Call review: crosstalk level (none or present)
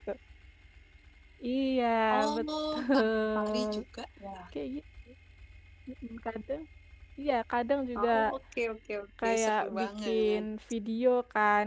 present